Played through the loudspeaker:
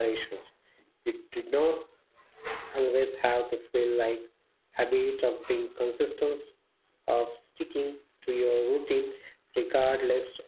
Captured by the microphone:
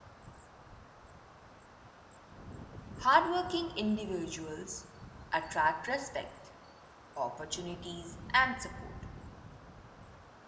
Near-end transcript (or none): Hardworking individuals attract respect, opportunities, and support